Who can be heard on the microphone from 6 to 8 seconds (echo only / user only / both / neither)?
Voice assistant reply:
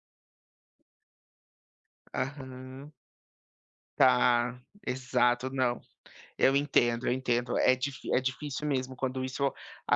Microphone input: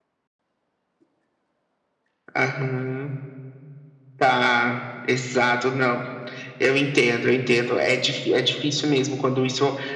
echo only